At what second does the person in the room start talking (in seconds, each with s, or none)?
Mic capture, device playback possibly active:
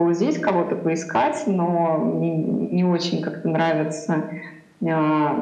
none